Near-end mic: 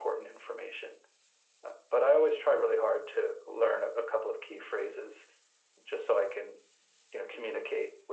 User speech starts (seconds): none

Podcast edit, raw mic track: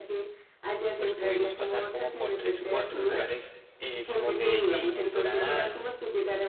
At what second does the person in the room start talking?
1.0 s

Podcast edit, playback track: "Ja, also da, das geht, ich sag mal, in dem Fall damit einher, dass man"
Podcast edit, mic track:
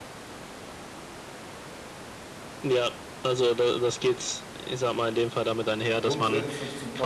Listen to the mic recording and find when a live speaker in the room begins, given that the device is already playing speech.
5.9 s

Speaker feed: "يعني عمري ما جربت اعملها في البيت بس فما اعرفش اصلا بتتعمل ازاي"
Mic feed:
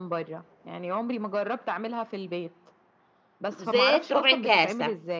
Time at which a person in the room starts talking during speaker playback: 3.6 s

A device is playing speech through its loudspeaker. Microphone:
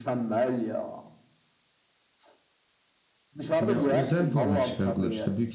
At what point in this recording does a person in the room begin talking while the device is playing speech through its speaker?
3.6 s

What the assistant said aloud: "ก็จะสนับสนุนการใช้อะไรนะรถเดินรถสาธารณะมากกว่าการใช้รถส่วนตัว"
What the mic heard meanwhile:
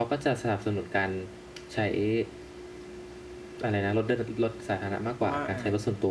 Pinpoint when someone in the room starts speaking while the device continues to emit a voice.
5.1 s

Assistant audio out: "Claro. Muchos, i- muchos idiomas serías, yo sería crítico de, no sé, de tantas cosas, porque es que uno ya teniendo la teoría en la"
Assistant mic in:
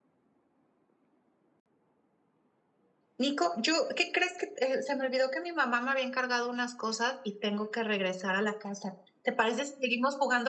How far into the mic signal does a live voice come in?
3.2 s

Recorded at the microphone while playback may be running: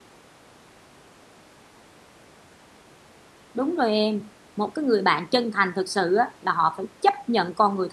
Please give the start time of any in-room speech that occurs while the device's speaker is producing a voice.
3.5 s

